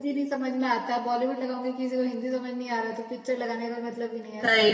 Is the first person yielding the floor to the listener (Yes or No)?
Yes